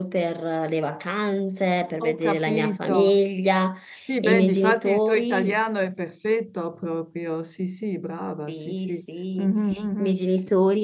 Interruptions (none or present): present